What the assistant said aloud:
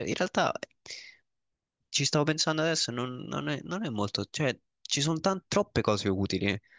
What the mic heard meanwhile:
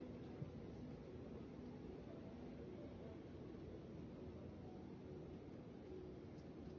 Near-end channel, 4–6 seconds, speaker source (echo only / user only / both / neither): neither